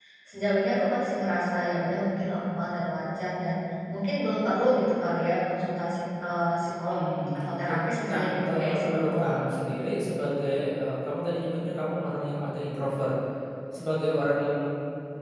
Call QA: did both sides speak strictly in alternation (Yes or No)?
No